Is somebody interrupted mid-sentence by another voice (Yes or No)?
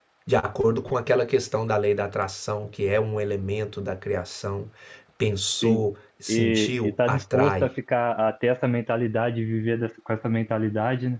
Yes